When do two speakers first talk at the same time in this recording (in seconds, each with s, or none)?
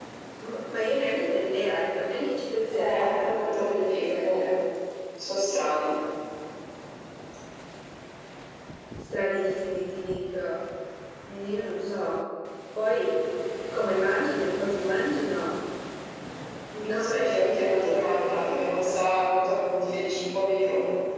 2.7 s